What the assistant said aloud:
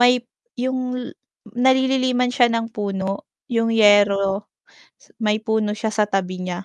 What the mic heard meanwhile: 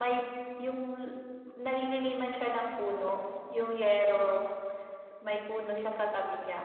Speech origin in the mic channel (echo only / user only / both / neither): echo only